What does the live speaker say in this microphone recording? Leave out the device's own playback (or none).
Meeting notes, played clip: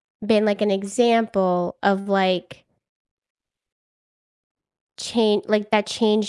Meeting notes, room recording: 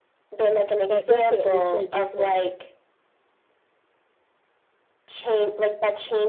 that definitely changes things.